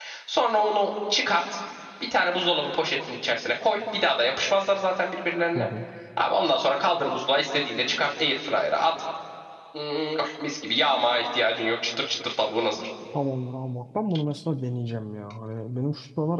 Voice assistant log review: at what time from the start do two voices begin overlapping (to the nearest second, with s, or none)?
none